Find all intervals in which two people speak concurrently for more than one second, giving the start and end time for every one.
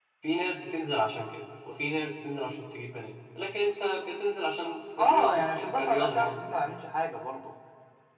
5.0-6.4

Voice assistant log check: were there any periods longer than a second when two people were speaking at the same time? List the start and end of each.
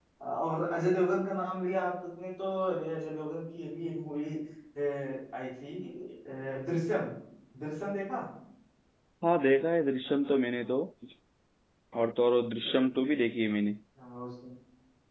none

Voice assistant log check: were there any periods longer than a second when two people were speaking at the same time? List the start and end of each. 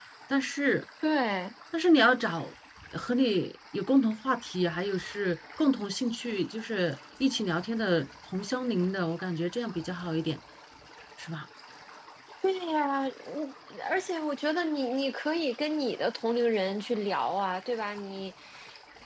none

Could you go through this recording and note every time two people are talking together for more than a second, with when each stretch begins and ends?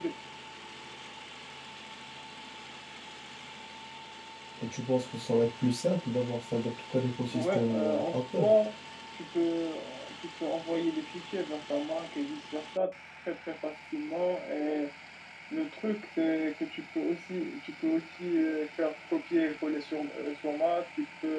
7.3-8.5

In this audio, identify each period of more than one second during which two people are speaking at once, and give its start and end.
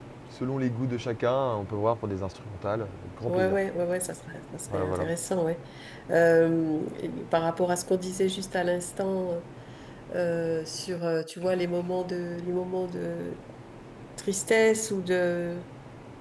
none

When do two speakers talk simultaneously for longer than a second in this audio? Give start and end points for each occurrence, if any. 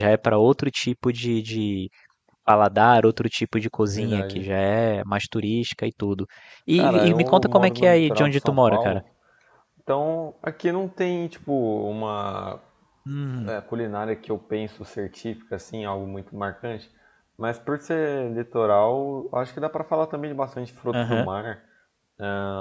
6.8-9.0

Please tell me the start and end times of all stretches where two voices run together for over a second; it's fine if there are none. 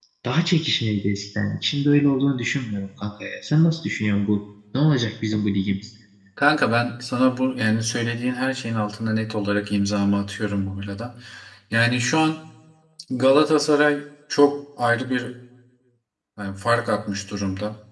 none

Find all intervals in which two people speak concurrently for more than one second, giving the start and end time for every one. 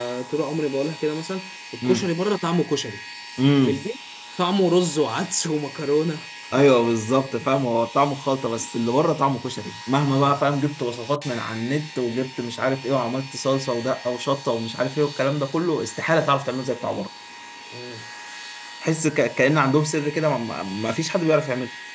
none

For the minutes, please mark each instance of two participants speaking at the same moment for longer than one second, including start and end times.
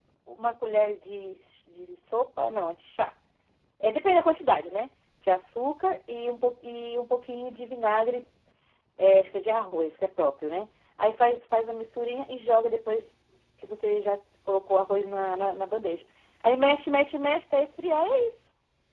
none

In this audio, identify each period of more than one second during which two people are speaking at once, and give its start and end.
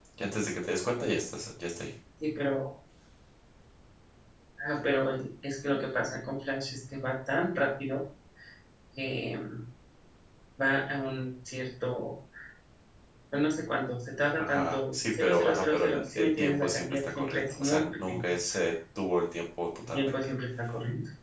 14.4-18.3

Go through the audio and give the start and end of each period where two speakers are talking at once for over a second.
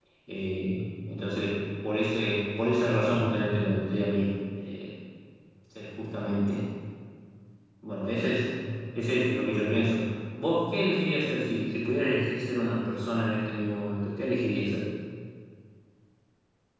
none

